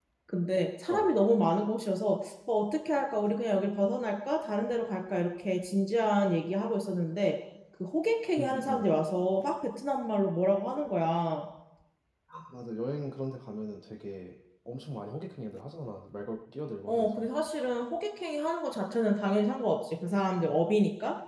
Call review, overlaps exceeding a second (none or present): none